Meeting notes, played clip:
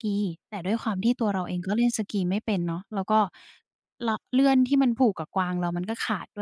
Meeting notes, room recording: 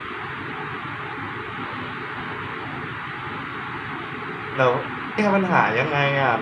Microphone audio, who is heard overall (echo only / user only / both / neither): user only